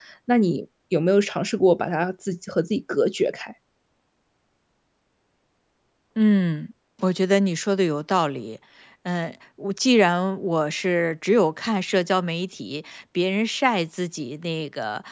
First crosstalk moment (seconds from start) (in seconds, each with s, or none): none